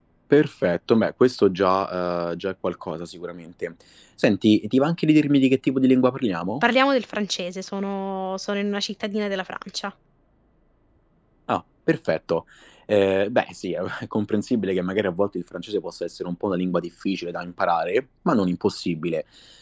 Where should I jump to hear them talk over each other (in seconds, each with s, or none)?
none